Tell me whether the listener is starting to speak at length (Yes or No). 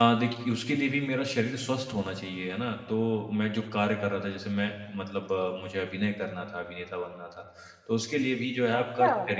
Yes